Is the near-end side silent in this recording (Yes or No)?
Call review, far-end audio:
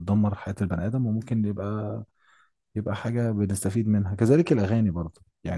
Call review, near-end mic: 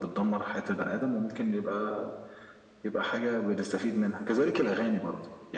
Yes